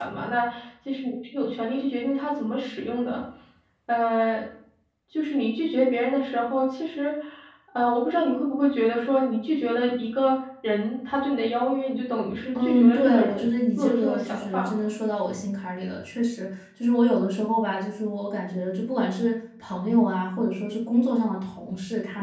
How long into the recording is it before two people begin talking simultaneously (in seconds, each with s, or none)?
12.6 s